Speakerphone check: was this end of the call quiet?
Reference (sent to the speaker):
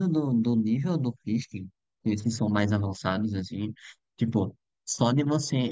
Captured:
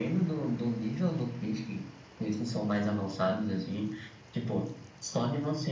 Yes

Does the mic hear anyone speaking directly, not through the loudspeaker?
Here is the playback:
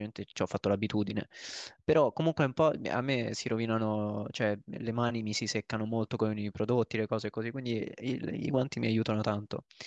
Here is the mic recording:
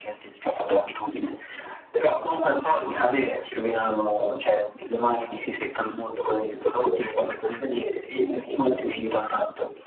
No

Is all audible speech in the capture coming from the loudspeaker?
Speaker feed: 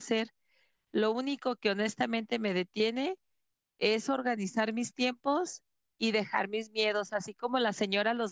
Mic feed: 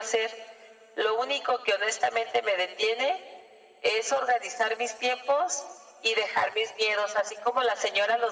Yes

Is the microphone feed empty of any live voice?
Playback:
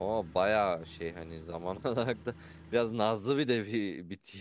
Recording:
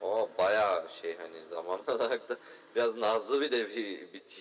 Yes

